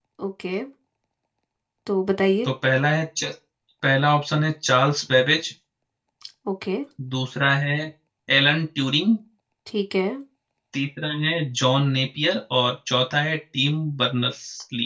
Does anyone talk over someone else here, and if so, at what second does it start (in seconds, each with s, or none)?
none